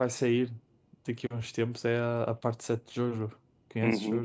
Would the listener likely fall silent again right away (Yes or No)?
No